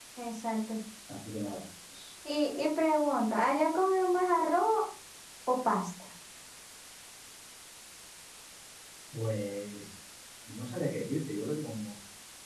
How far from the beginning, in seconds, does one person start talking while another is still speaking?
none

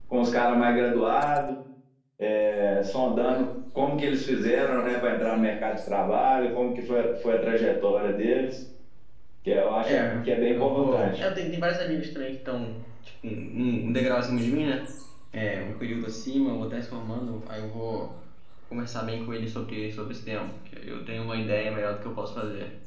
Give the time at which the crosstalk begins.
9.9 s

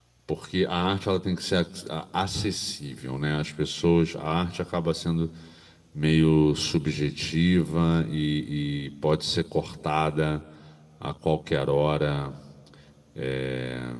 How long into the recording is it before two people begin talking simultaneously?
none

